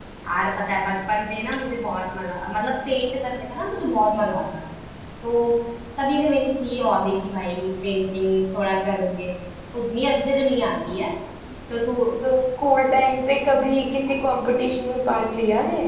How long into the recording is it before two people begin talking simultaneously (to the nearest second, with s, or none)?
none